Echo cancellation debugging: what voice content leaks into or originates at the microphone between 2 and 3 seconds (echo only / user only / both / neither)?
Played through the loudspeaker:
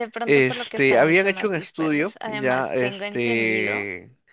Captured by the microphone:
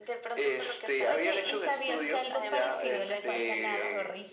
both